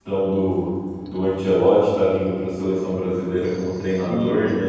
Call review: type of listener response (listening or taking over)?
listening